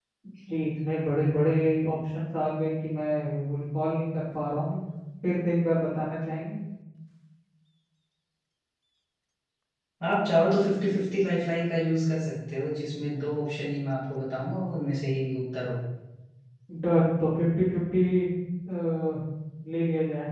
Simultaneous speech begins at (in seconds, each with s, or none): none